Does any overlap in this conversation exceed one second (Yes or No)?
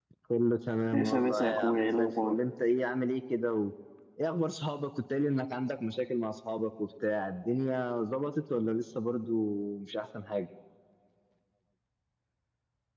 Yes